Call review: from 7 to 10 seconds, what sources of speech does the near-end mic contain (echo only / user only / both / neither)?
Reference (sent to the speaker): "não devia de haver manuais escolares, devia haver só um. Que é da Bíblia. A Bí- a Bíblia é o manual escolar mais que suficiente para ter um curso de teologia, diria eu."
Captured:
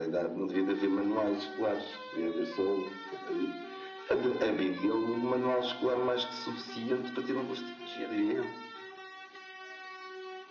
echo only